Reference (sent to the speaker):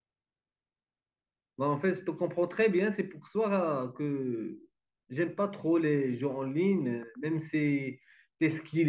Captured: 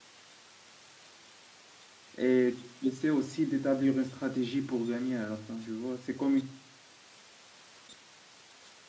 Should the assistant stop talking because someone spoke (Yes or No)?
Yes